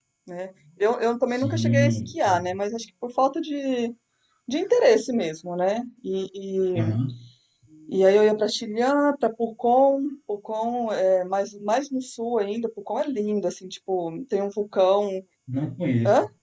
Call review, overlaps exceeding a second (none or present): present